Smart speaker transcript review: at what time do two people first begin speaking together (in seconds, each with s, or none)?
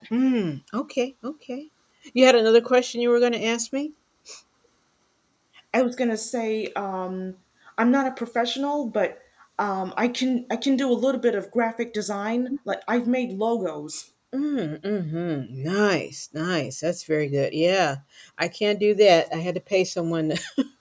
none